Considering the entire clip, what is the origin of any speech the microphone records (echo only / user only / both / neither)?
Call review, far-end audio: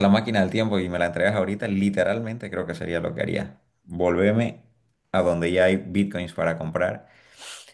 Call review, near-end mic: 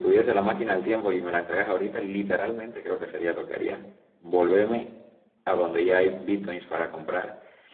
echo only